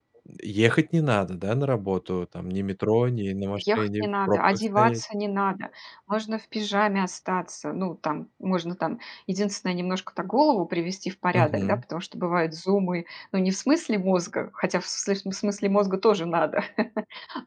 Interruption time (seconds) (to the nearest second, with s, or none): 4 s